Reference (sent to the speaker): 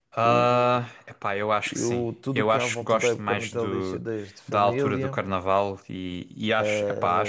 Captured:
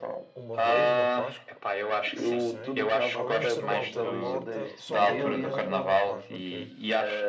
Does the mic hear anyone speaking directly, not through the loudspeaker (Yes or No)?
Yes